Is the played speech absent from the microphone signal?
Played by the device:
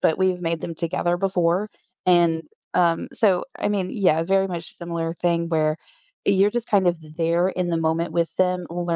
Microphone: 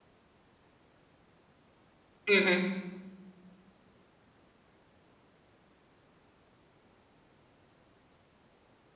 Yes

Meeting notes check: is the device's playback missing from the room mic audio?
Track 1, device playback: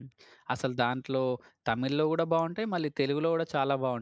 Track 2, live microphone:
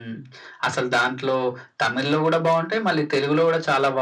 No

